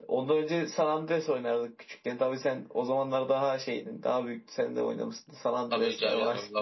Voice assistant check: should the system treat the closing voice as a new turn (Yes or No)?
Yes